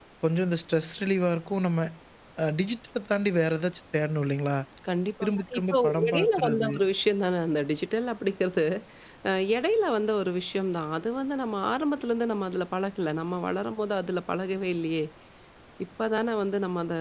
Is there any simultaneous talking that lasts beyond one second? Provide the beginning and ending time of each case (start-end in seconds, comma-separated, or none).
5.2-6.7